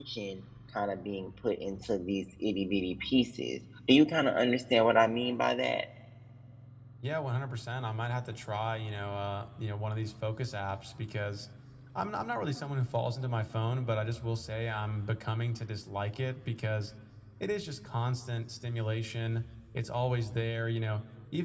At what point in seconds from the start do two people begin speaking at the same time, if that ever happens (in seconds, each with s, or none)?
none